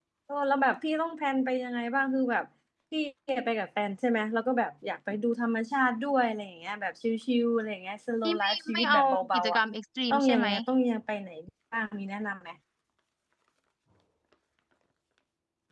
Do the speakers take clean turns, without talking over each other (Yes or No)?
No